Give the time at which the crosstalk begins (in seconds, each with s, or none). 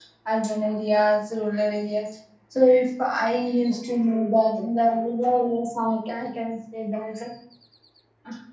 none